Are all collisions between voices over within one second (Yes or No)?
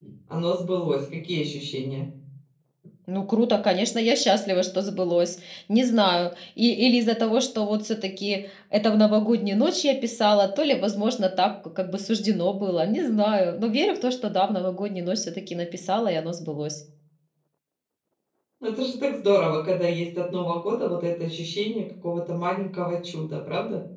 Yes